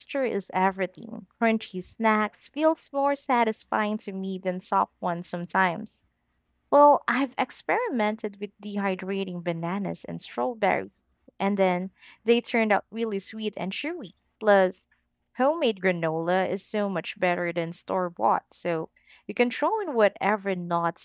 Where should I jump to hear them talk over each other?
none

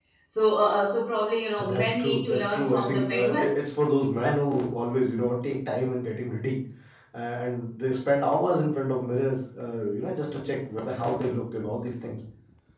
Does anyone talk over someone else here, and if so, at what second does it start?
1.6 s

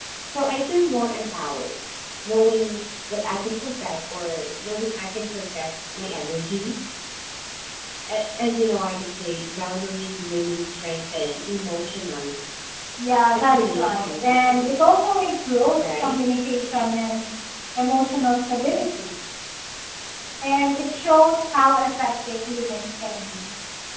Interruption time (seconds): 13.3 s

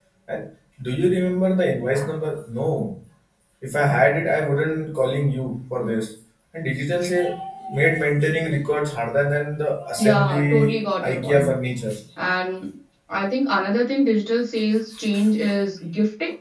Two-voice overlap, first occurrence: 10.0 s

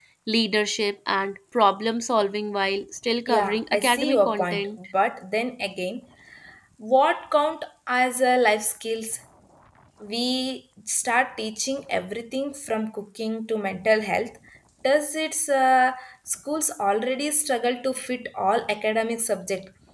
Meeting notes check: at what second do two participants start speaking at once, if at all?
3.3 s

